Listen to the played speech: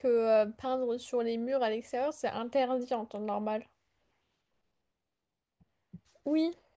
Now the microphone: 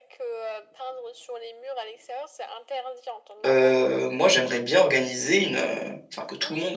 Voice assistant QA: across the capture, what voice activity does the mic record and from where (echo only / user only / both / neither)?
both